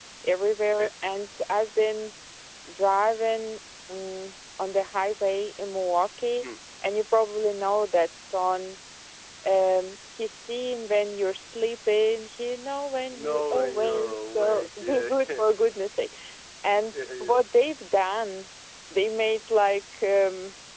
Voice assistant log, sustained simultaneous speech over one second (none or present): present